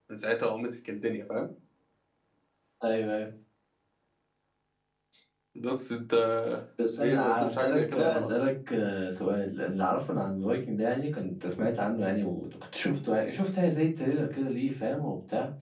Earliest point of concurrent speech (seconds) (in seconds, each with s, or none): 7.0 s